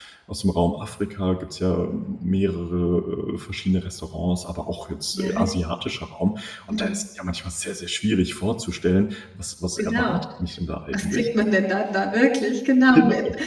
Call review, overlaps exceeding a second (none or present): none